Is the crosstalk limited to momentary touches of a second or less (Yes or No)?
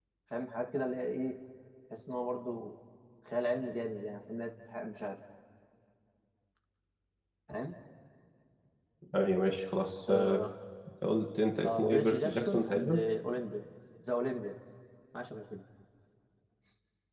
No